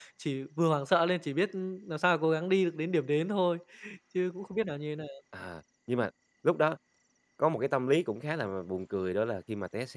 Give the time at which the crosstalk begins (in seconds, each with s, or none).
none